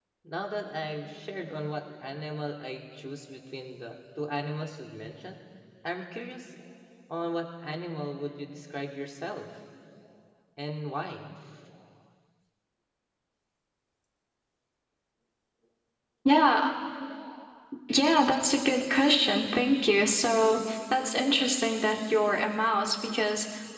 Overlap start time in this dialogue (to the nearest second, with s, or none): none